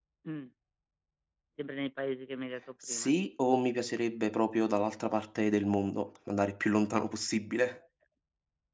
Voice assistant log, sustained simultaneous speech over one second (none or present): none